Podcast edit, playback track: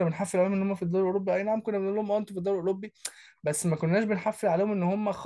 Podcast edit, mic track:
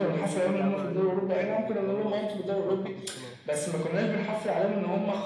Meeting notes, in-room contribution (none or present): present